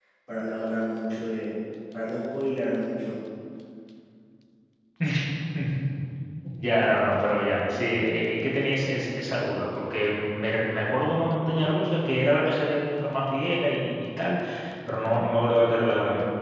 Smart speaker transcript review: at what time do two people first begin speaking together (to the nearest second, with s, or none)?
none